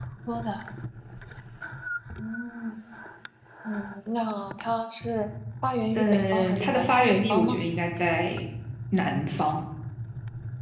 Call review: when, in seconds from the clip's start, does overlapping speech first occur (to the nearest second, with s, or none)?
6 s